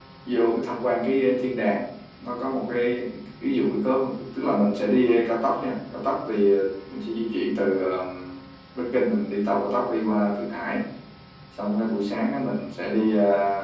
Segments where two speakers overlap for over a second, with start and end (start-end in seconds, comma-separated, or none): none